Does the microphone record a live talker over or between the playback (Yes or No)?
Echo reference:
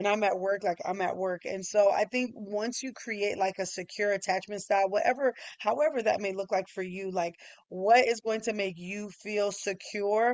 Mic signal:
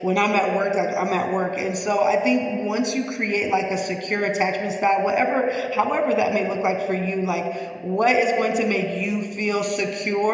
No